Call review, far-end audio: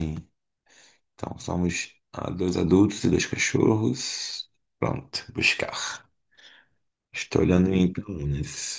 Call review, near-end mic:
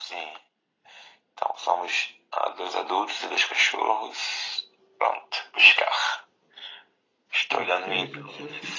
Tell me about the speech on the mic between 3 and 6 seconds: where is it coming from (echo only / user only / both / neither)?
echo only